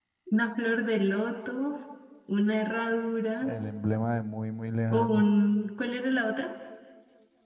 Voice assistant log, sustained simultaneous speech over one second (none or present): none